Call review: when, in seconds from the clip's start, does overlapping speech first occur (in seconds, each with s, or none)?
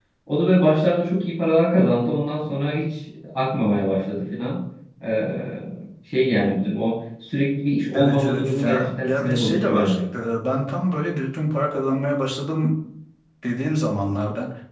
7.9 s